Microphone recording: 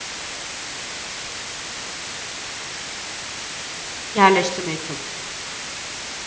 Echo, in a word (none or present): none